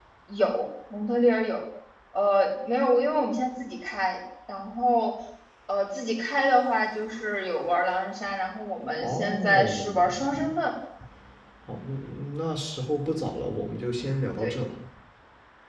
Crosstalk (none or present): present